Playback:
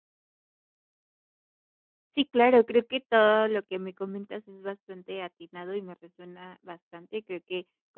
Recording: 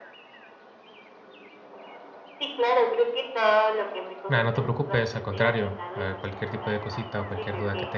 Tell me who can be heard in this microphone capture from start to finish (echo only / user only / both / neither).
both